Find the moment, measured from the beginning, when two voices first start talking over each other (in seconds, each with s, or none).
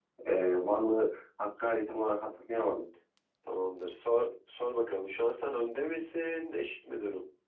none